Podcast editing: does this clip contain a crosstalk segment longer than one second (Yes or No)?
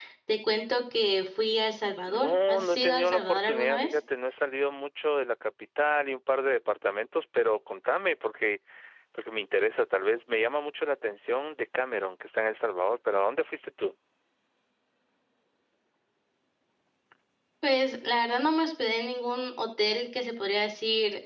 Yes